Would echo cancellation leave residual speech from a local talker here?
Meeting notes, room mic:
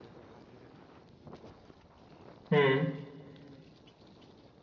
Yes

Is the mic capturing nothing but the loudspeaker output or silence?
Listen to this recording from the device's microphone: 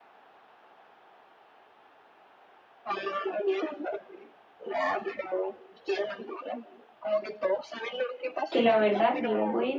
No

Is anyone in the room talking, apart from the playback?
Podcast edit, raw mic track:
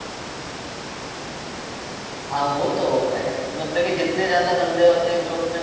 Yes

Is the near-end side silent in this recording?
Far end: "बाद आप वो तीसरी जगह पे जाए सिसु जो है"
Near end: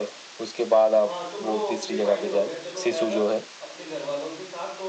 No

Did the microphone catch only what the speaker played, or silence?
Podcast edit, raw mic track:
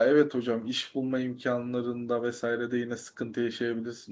No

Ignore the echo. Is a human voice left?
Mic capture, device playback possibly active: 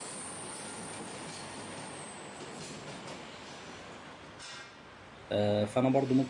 Yes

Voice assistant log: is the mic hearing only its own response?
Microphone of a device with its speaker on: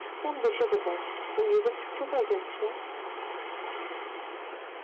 Yes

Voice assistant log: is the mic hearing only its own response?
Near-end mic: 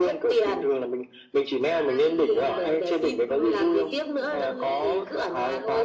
No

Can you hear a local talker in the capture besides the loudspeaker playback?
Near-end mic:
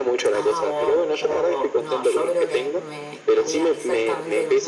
No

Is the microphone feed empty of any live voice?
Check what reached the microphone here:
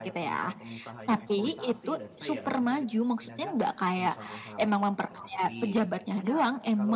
No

